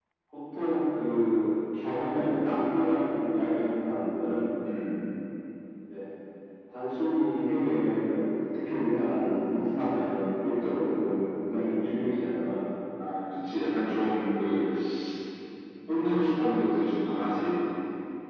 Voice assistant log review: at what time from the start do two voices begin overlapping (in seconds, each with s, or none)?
none